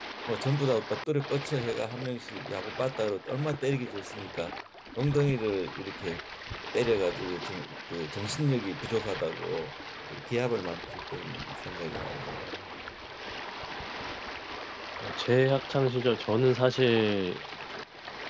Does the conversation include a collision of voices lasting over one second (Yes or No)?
No